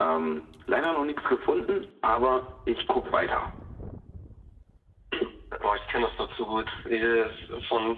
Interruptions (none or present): none